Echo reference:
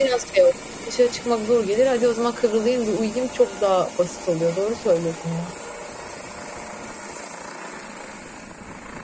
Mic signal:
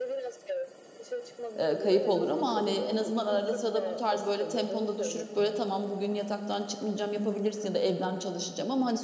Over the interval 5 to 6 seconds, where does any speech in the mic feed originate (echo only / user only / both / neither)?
both